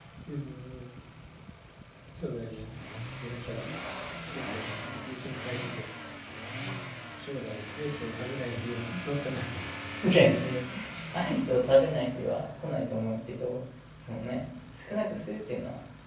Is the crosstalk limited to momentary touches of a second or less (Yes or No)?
Yes